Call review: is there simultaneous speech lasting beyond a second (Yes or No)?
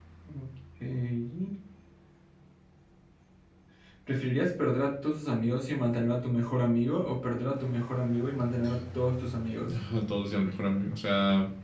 No